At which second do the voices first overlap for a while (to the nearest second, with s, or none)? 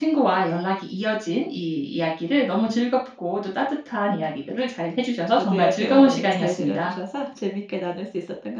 5 s